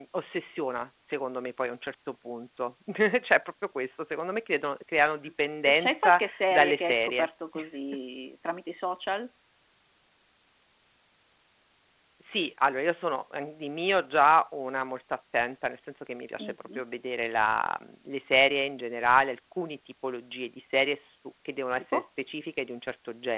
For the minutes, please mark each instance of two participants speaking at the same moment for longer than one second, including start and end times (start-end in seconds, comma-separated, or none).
5.7-7.3